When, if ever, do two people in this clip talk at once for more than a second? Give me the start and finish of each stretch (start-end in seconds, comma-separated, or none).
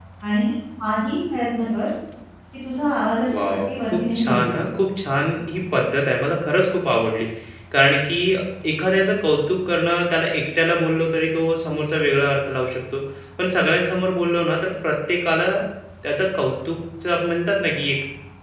3.3-4.6